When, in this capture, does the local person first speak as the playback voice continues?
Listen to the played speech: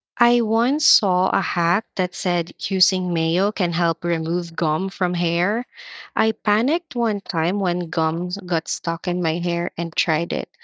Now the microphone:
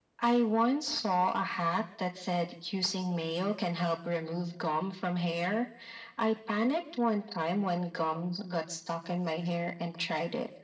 none

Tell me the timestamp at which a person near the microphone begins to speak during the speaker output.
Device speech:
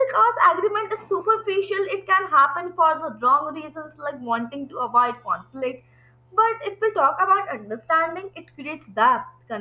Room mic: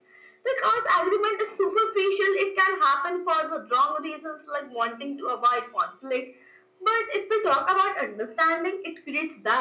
none

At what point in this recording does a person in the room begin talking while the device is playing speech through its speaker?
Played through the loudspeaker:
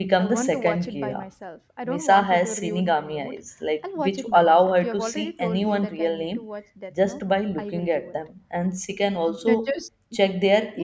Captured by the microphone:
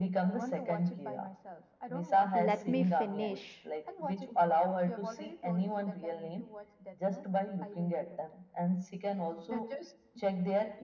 2.3 s

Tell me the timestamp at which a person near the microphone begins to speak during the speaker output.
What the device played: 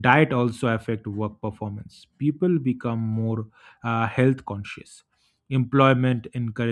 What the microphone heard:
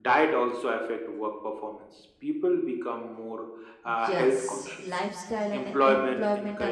3.8 s

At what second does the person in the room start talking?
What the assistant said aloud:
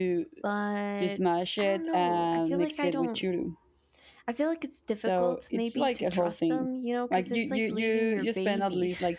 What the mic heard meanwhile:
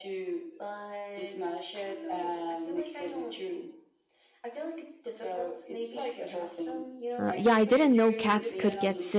7.2 s

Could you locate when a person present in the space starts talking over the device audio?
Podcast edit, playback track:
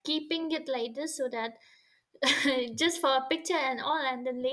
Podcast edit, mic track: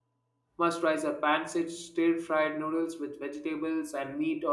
0.6 s

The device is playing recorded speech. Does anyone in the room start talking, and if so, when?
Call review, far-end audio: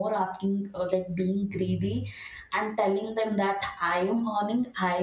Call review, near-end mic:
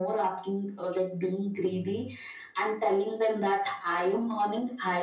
none

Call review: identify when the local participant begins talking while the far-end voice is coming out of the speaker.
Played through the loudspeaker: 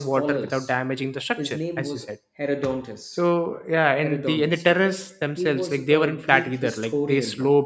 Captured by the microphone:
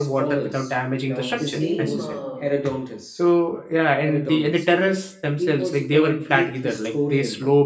1.1 s

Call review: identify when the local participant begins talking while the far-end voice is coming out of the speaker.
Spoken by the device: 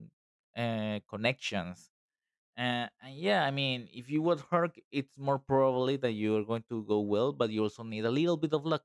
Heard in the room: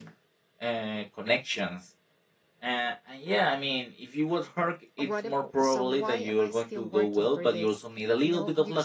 5.0 s

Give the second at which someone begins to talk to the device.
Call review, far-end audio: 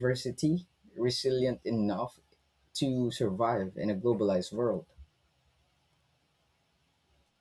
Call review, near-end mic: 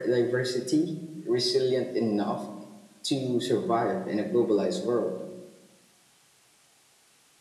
none

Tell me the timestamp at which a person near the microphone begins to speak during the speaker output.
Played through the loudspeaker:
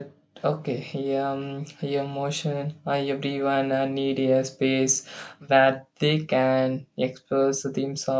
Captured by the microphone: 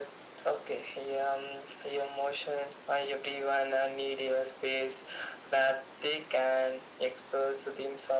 none

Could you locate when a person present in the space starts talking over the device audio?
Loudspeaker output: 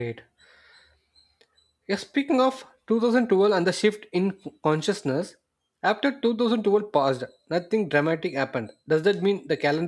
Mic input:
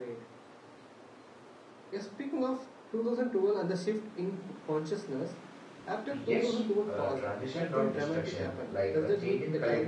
6.1 s

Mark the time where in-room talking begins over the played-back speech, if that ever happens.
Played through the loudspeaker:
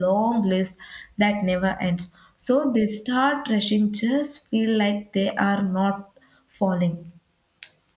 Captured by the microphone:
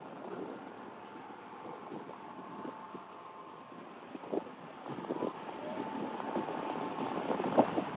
none

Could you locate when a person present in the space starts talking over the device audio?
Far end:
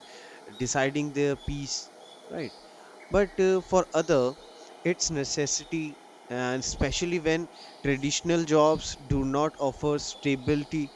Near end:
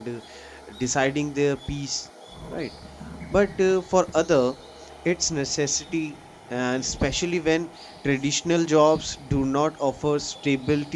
none

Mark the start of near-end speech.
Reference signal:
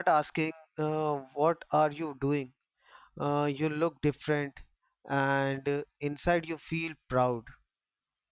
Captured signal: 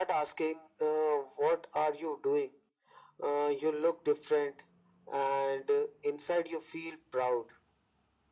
none

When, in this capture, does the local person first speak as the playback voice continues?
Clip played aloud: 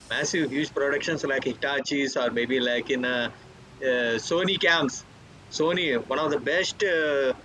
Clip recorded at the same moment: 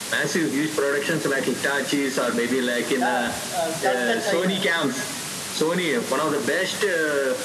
3.0 s

